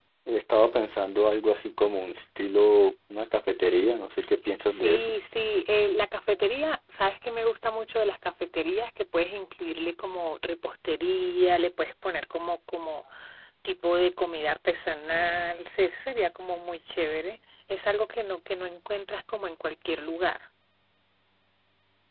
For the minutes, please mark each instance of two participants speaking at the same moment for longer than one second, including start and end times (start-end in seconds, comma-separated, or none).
none